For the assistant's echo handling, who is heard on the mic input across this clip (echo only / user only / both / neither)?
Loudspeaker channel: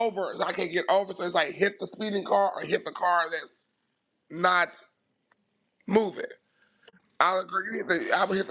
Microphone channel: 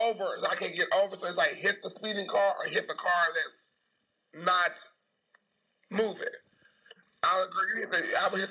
echo only